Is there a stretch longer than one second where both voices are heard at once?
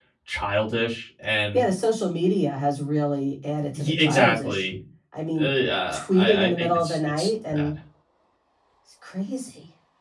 Yes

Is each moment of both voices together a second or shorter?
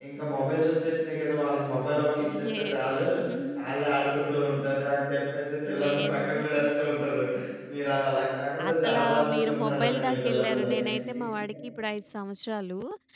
No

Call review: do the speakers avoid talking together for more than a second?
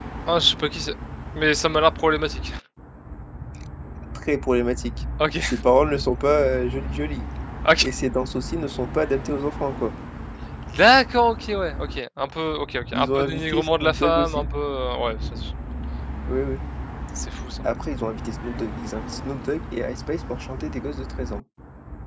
No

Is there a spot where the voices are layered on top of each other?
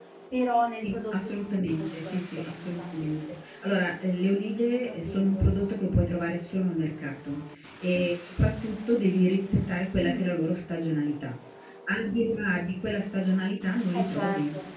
Yes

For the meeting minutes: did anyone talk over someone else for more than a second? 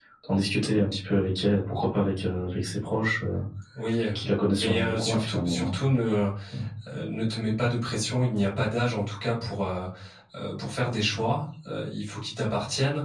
Yes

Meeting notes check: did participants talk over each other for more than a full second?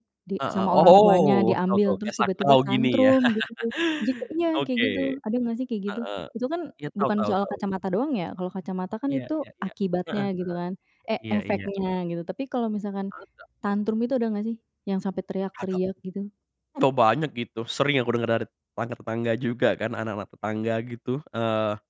Yes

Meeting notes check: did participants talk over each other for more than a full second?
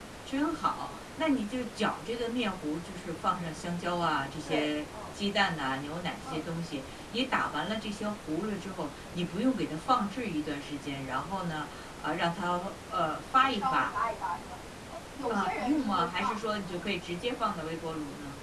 Yes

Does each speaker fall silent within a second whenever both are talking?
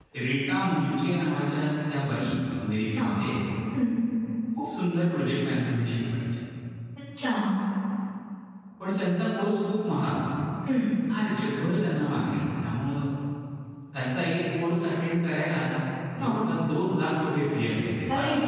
Yes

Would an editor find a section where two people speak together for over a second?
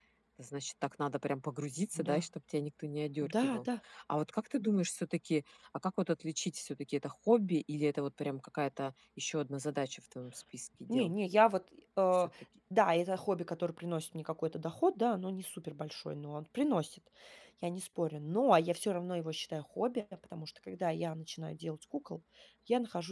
No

